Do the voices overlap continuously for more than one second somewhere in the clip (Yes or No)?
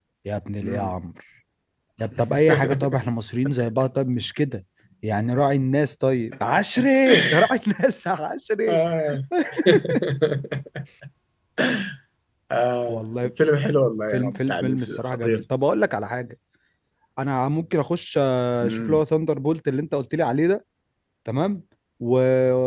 Yes